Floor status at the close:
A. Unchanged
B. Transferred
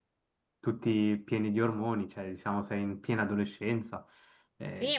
B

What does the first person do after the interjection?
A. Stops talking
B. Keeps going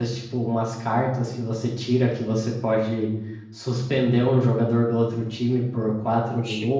B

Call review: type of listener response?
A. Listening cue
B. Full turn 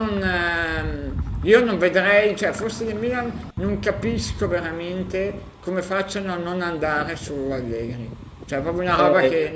B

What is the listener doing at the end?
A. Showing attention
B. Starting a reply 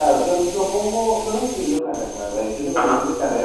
A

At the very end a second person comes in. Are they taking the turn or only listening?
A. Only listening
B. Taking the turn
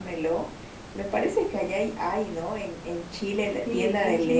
B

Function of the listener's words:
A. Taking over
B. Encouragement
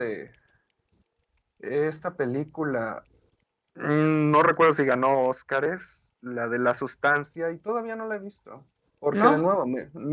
B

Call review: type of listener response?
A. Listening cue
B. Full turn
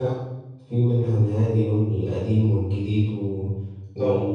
A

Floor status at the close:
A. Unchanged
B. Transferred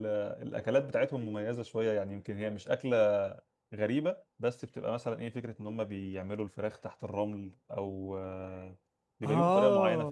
B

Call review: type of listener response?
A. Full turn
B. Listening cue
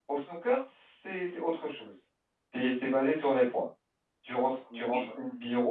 B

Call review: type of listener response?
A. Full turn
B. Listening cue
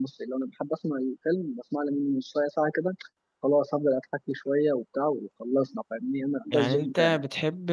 A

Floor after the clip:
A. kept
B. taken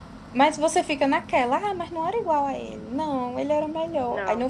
A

